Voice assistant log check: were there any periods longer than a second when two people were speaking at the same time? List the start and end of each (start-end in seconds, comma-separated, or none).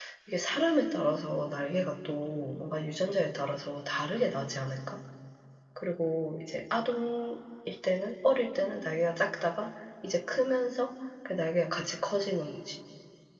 none